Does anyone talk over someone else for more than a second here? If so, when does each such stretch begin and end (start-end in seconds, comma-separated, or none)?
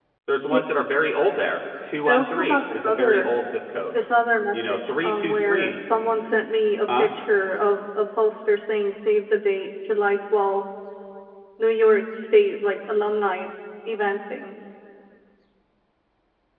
2.0-3.3, 4.5-5.8